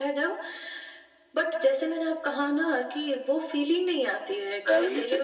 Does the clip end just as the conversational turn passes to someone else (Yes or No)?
Yes